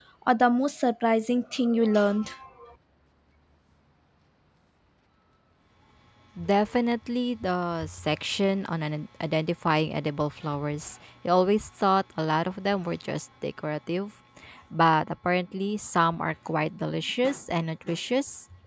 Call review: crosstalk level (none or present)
none